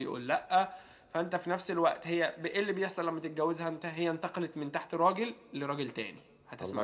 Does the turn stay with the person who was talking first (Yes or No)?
Yes